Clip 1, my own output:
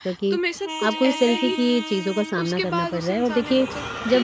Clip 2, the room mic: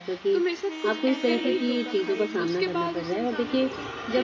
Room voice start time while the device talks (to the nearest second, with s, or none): 1 s